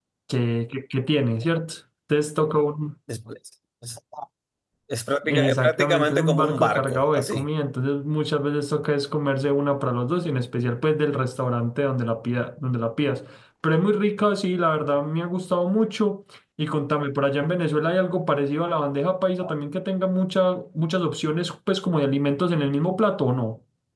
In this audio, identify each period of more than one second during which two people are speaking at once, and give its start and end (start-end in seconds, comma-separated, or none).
5.3-7.5